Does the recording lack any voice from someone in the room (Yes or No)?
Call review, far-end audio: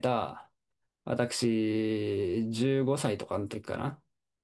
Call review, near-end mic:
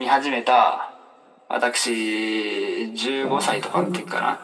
No